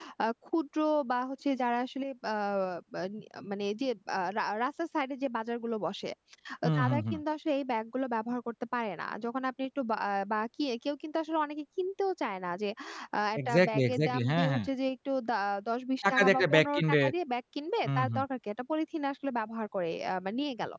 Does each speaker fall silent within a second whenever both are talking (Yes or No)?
No